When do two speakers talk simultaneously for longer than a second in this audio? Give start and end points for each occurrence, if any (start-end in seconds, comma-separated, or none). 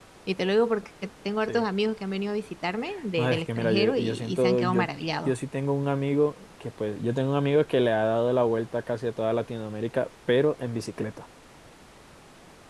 3.2-4.8